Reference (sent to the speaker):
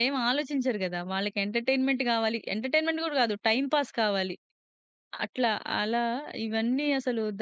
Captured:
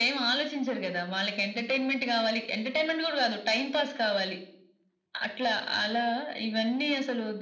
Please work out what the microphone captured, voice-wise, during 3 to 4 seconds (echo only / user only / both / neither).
echo only